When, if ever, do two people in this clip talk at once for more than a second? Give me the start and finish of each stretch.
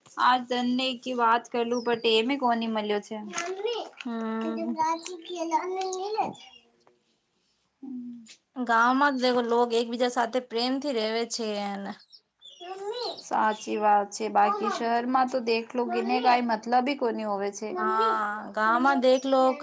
none

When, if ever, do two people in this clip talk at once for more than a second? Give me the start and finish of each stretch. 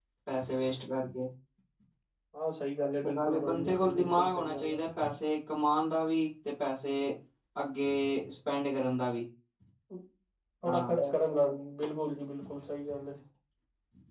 3.0-4.8

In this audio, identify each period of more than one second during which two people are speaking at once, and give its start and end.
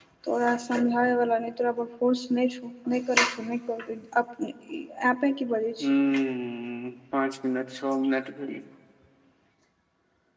none

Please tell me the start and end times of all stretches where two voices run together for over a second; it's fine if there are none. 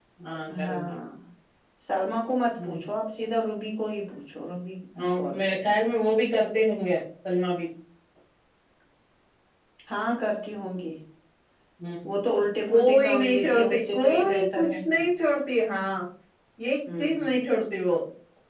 12.7-14.8

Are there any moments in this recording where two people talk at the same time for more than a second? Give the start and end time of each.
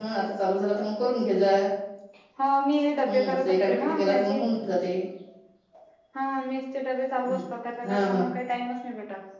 3.1-4.4

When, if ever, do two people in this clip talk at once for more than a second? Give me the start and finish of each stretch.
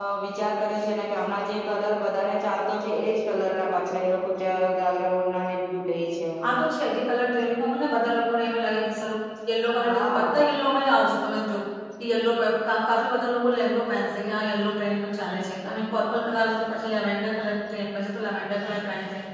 none

